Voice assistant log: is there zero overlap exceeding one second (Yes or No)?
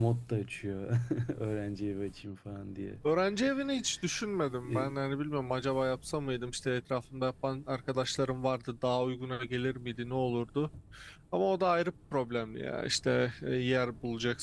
Yes